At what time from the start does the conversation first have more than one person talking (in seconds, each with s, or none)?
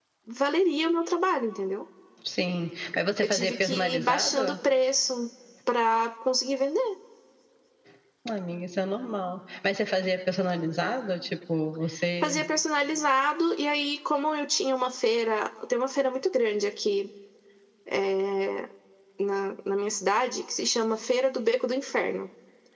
3.2 s